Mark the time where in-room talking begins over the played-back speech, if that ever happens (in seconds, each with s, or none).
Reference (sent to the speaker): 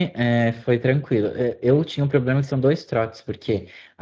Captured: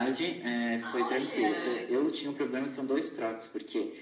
0.8 s